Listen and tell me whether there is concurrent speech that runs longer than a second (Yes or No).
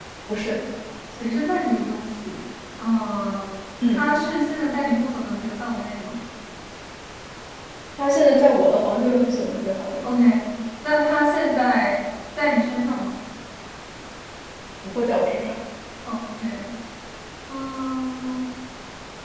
No